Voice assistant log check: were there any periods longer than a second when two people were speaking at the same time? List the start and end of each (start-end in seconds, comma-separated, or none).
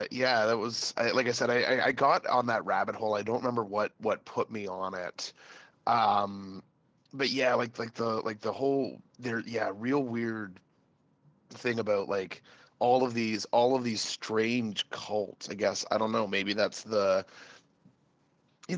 none